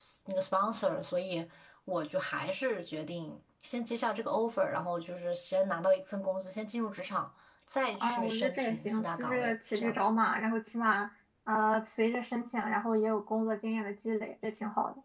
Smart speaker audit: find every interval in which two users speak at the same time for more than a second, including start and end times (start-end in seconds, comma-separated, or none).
7.9-10.0